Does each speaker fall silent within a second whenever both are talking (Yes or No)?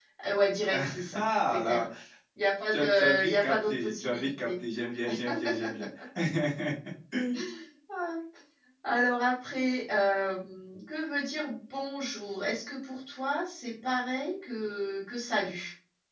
No